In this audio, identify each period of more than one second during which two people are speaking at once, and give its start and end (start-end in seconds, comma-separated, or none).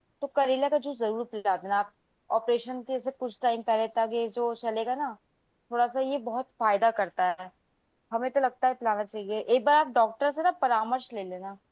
none